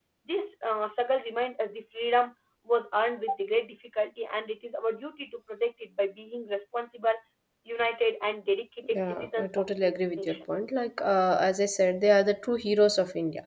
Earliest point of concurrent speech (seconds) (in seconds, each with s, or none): 8.8 s